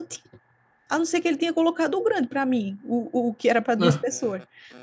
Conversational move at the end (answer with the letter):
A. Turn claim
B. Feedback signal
B